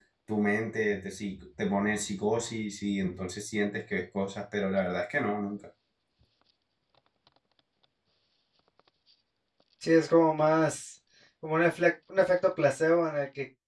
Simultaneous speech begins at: none

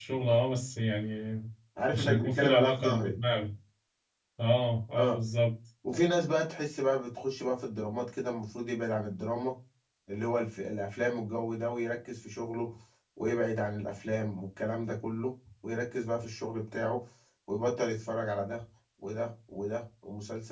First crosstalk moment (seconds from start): 1.9 s

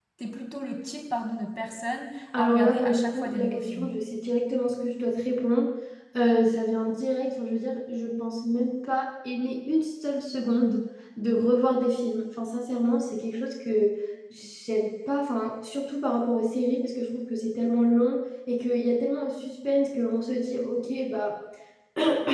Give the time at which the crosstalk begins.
2.3 s

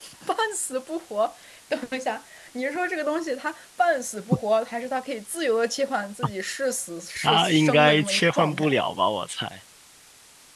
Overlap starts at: 7.2 s

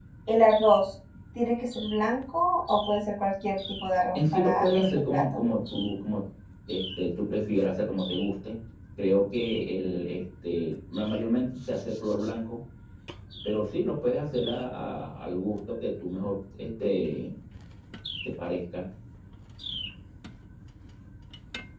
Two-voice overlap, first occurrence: 4.2 s

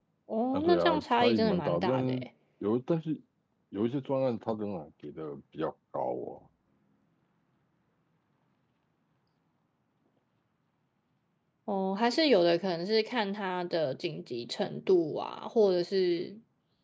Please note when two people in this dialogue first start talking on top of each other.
0.5 s

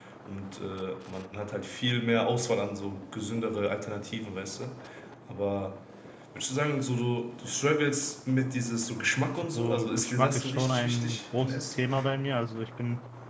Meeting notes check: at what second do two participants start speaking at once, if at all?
9.4 s

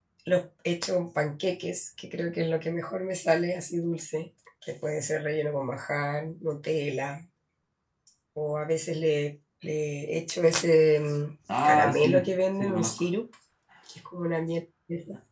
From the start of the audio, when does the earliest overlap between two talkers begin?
11.5 s

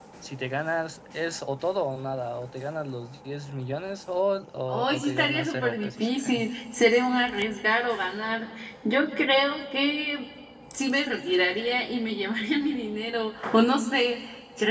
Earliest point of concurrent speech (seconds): 4.7 s

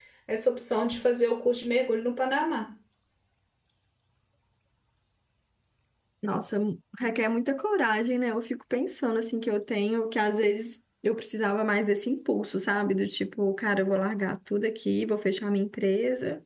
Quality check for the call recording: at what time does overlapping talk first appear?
none

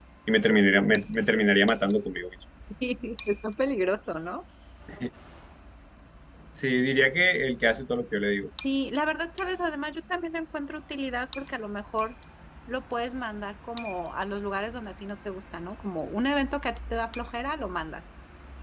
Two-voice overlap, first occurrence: none

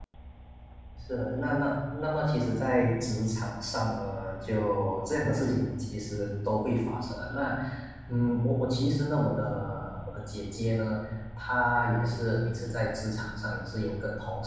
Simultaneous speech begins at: none

